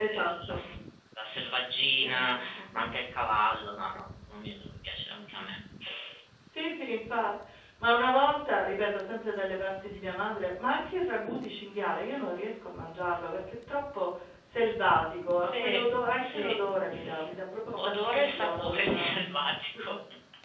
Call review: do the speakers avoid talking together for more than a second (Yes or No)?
No